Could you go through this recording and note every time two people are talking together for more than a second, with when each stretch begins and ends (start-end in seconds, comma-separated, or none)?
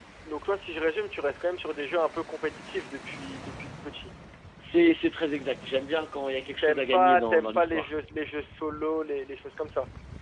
6.6-7.9